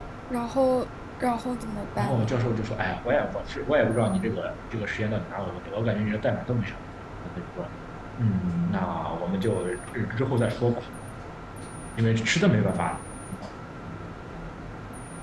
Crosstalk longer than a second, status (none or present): none